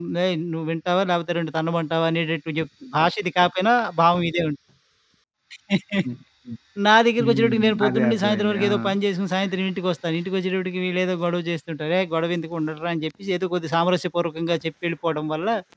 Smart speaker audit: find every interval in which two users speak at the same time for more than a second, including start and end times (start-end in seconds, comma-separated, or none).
7.2-8.7